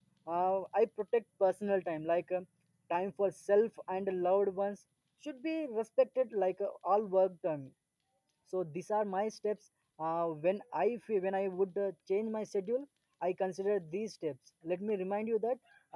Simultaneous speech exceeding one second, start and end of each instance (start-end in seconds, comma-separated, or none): none